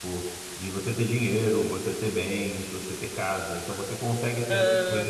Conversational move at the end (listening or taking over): listening